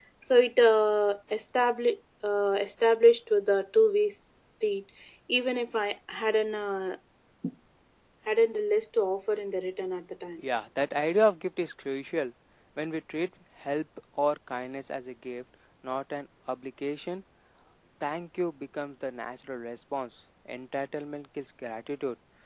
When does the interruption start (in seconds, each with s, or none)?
none